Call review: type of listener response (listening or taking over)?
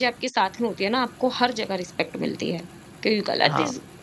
listening